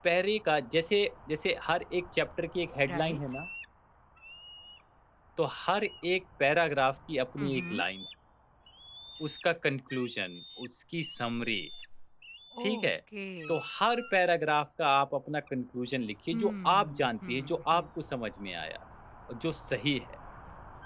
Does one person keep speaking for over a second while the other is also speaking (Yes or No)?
Yes